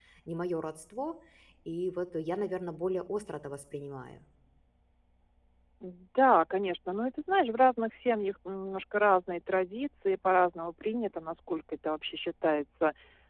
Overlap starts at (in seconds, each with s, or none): none